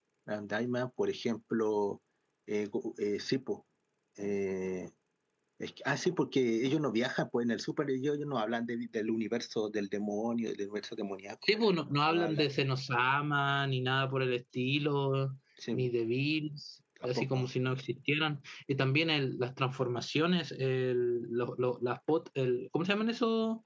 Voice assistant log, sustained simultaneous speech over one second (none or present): none